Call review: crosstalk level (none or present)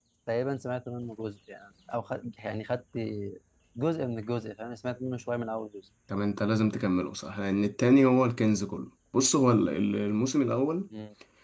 none